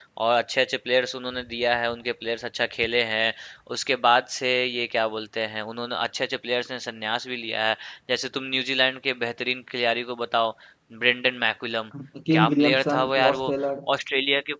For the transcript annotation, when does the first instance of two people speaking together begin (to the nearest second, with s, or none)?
12 s